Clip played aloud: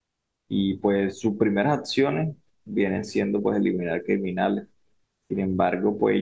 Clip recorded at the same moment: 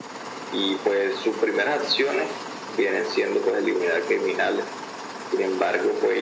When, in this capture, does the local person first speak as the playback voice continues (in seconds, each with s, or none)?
none